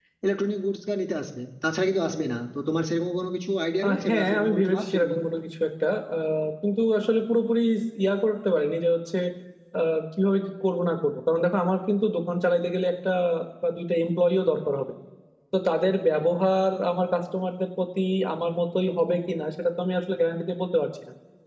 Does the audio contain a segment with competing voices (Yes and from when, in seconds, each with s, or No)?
Yes, from 3.8 s